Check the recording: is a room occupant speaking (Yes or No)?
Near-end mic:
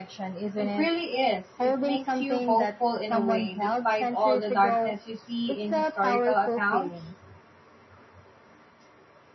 Yes